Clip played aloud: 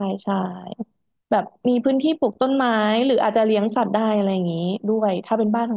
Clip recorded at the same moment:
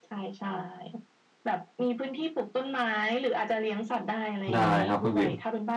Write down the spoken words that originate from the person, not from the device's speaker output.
ได้ครับคุณบิ่ม

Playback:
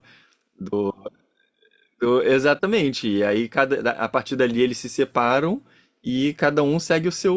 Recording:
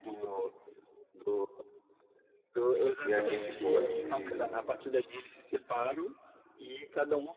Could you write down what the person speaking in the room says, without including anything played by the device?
e a gente pode.

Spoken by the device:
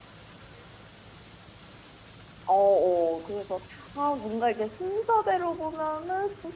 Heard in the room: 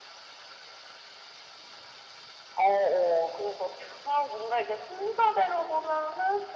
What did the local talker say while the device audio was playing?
none

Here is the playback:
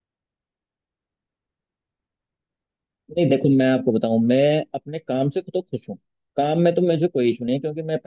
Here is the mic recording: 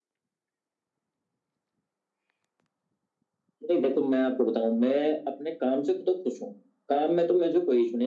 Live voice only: none

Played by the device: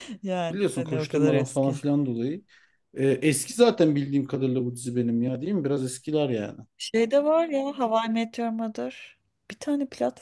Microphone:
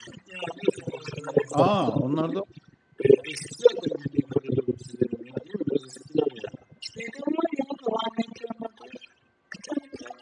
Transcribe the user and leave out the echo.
Aa, onlarda

